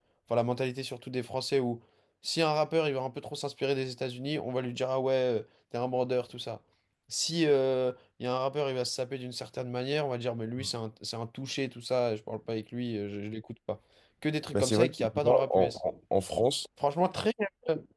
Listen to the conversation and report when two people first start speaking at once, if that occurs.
14.5 s

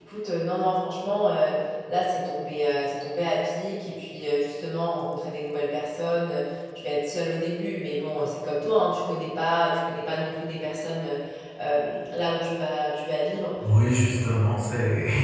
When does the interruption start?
none

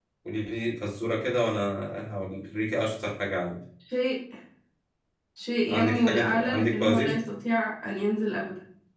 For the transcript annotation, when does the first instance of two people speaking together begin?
5.7 s

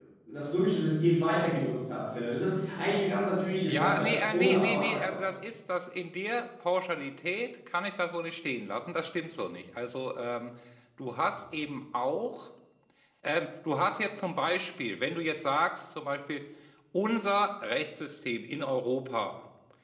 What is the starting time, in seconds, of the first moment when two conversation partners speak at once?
3.7 s

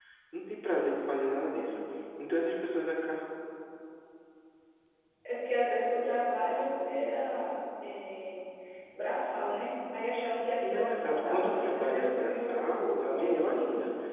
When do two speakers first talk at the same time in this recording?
10.6 s

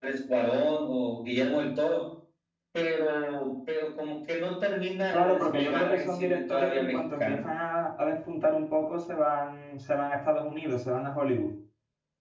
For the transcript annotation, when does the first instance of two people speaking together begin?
5.1 s

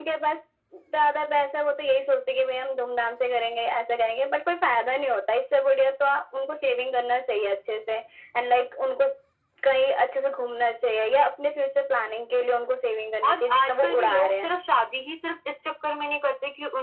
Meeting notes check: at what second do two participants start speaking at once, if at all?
13.2 s

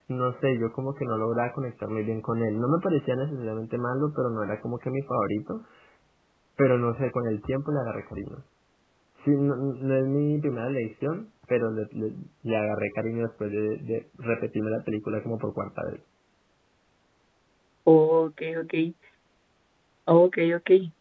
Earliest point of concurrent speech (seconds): none

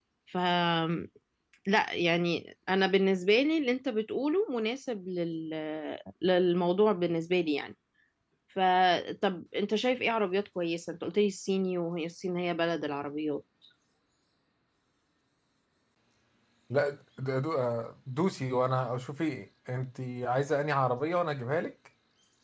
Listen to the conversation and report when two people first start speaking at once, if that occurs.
none

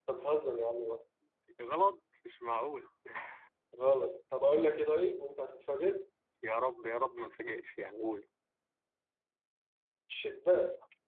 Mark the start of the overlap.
none

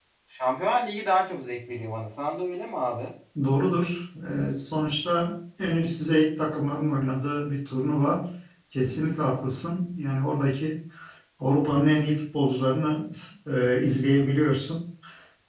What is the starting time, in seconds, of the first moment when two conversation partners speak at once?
none

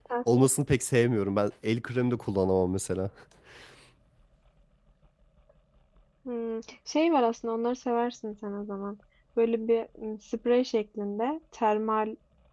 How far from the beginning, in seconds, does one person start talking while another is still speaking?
none

